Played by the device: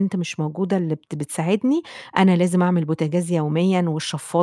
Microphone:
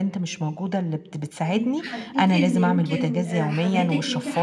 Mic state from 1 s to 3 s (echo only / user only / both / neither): both